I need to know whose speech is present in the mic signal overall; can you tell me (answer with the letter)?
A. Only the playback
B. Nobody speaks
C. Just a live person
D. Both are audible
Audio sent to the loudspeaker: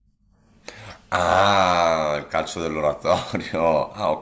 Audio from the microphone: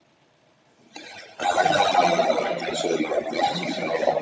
D